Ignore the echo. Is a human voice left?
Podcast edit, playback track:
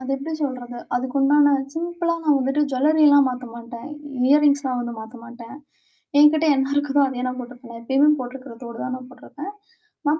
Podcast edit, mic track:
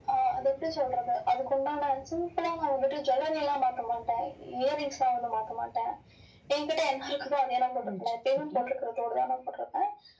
Yes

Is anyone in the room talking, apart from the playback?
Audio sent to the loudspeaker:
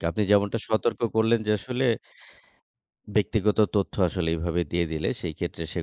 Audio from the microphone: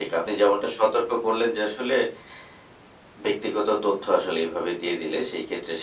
No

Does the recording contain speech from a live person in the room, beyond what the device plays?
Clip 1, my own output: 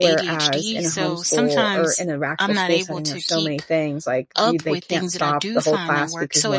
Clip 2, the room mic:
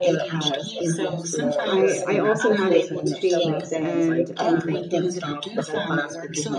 Yes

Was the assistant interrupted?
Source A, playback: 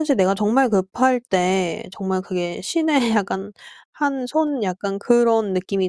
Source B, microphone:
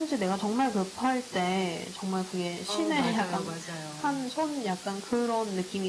Yes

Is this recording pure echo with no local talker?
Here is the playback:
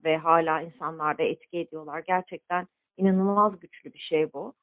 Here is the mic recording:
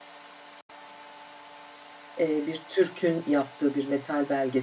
No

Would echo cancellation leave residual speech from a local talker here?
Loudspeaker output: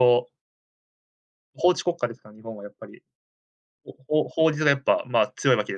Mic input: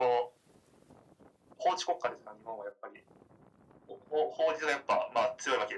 No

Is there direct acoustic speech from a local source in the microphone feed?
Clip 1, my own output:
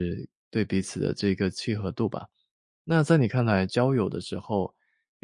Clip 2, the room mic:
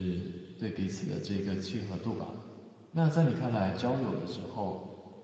No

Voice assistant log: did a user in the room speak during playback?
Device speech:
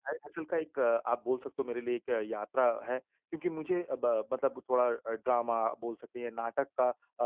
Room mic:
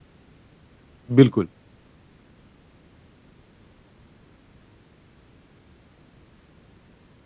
Yes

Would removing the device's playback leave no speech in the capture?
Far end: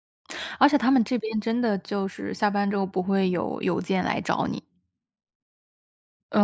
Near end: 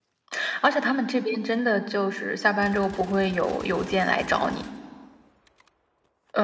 Yes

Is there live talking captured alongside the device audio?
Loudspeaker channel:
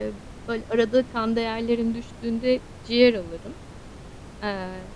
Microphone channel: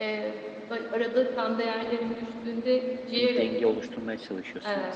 Yes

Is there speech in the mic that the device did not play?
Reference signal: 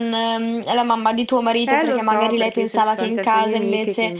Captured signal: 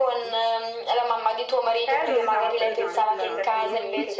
Yes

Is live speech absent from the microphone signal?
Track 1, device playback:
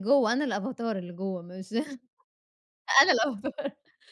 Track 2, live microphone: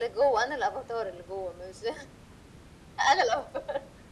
Yes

